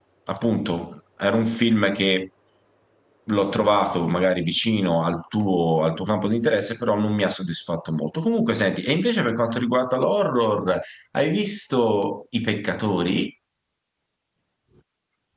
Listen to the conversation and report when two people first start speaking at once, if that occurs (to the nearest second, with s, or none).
none